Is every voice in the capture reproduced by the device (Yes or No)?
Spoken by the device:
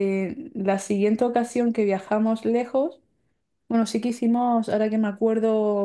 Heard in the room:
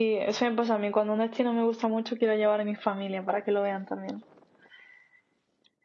No